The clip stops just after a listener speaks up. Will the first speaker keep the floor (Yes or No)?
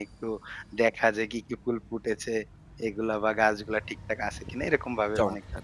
No